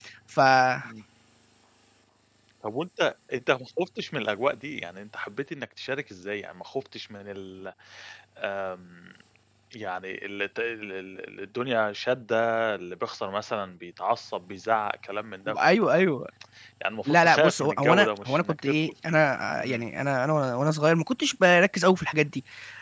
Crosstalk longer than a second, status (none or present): present